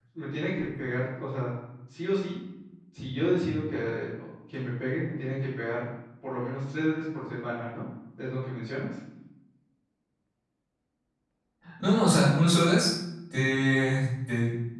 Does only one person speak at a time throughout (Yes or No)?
Yes